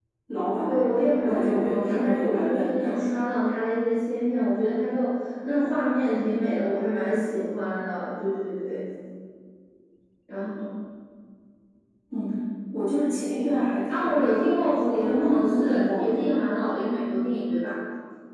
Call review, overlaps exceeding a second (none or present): present